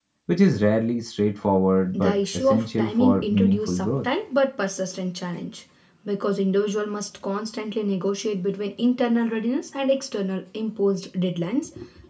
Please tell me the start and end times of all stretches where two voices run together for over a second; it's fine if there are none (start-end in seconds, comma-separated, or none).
1.9-4.1